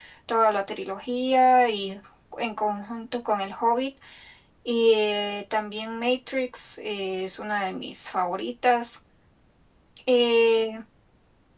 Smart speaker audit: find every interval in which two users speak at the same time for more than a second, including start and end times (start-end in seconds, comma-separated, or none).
none